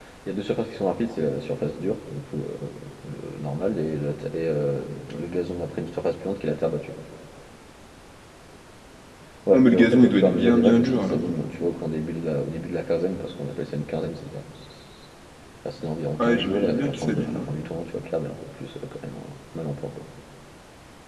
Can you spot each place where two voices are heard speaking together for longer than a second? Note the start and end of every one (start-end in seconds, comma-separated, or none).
9.5-11.2, 16.2-17.5